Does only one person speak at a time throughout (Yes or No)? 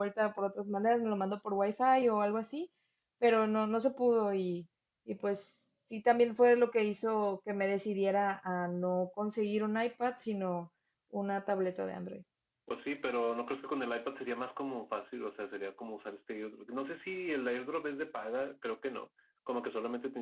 Yes